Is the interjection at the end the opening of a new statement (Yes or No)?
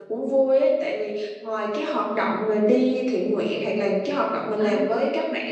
No